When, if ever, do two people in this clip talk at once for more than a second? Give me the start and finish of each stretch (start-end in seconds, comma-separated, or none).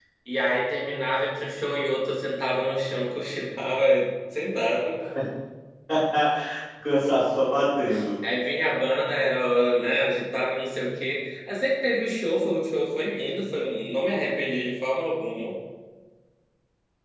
none